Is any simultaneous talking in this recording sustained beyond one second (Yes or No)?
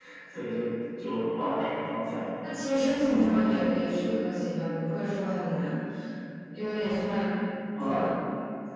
No